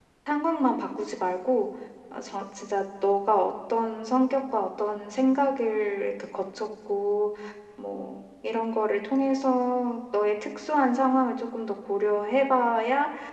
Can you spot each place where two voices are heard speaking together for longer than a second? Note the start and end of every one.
none

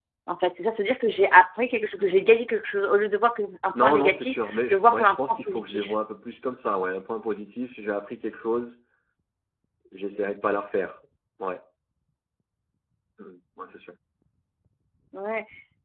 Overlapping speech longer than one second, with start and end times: 3.8-6.0

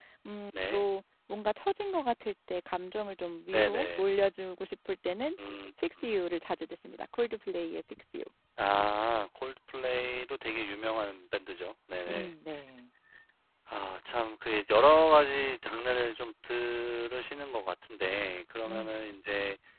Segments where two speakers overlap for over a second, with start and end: none

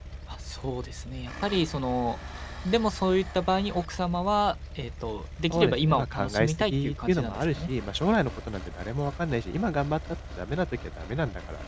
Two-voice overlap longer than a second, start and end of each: 5.5-7.7

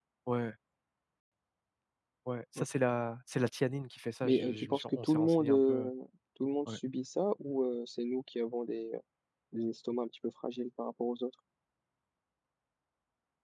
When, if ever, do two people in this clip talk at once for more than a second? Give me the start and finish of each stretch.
4.2-5.8

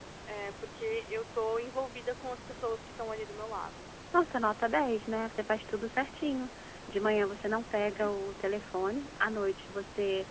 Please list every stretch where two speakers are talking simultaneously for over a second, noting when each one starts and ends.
none

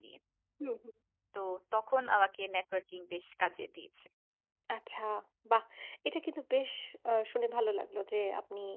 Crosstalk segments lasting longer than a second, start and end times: none

